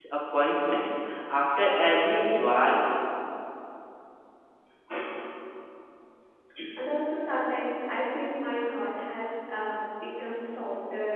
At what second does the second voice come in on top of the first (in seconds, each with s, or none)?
none